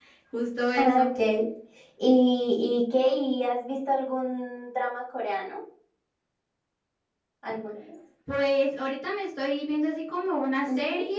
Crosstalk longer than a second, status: none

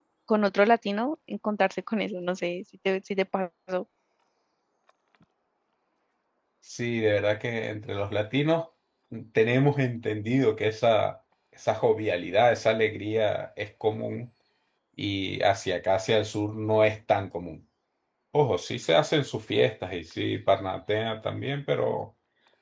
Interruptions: none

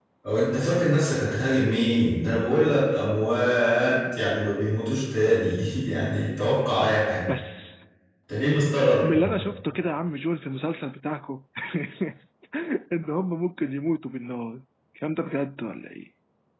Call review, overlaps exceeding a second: none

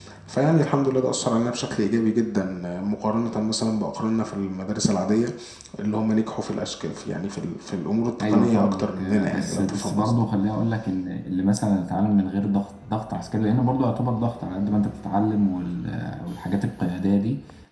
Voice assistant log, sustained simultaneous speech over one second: present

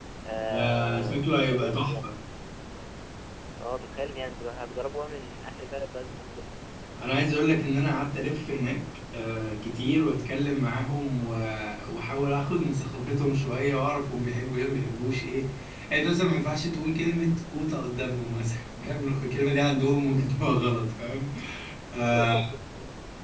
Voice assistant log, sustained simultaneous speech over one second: present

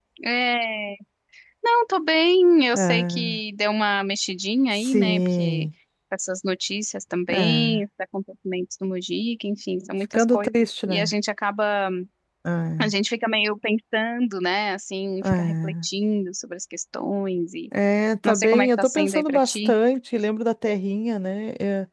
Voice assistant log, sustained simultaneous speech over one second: present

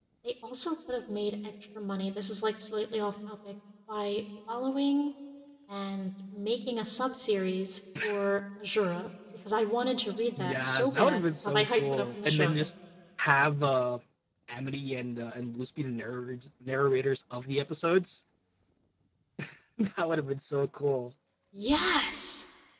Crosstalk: present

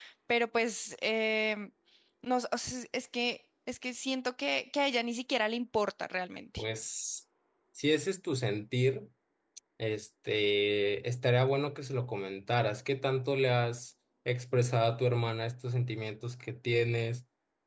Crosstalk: none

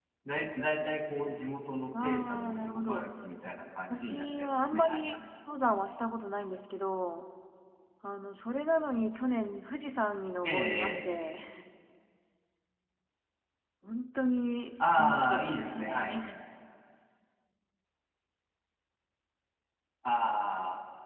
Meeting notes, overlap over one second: present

